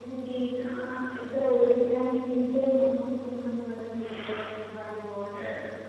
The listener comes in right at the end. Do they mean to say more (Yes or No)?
No